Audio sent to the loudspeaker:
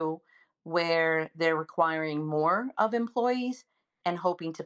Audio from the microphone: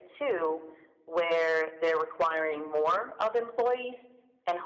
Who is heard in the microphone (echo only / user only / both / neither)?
echo only